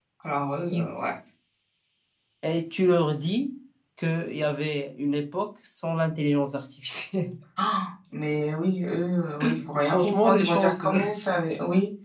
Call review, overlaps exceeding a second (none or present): present